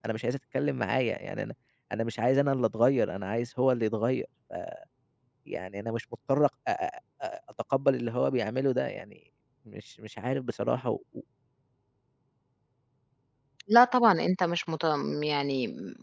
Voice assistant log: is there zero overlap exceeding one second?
Yes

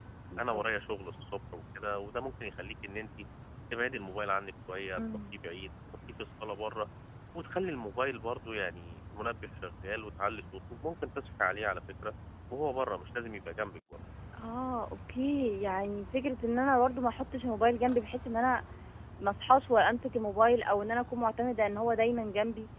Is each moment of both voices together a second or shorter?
Yes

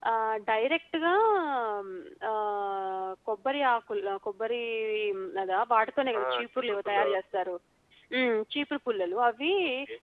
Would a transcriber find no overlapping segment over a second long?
No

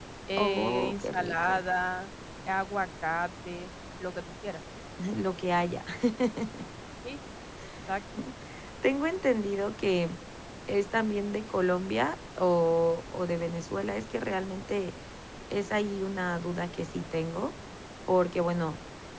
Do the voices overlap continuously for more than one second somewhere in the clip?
Yes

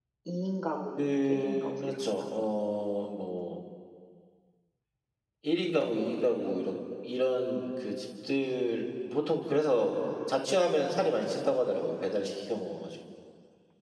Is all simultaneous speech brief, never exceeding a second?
No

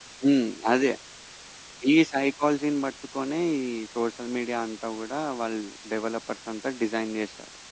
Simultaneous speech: No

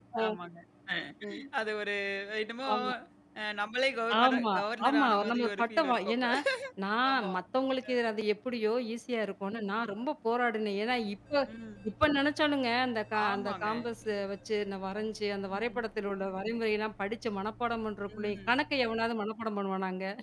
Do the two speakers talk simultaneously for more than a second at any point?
Yes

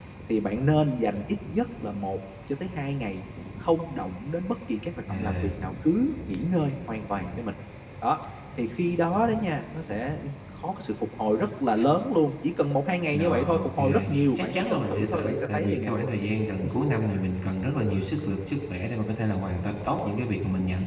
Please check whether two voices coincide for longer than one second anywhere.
Yes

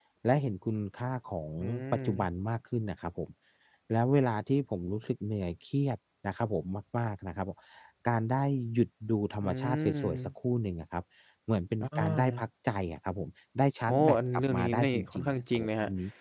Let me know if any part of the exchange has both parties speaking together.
Yes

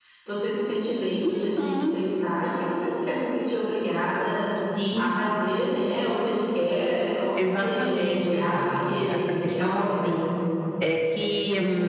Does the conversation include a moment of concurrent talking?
Yes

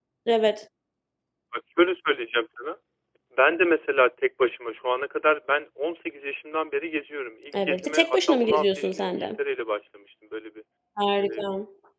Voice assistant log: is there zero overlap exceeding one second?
No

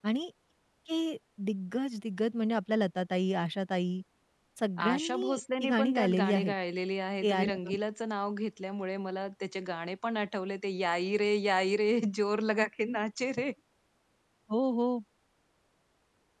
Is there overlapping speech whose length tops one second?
Yes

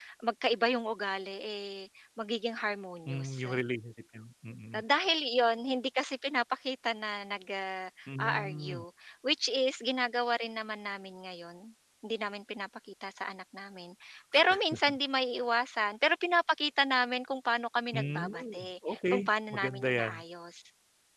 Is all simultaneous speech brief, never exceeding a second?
No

